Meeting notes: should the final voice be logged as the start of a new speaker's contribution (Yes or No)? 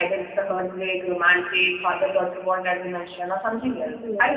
No